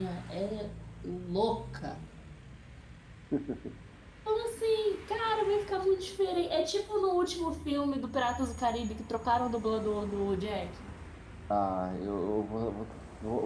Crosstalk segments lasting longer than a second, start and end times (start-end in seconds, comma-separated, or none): none